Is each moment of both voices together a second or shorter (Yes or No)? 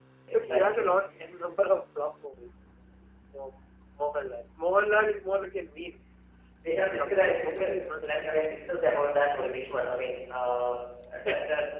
No